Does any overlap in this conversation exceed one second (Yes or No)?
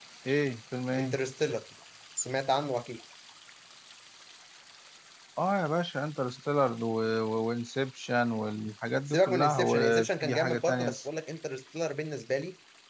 Yes